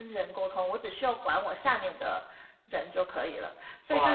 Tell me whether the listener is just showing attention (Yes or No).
No